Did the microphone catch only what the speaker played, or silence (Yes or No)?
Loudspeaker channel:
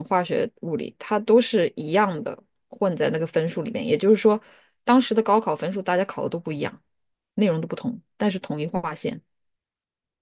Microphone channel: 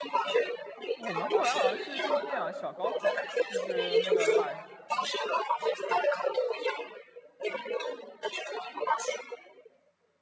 No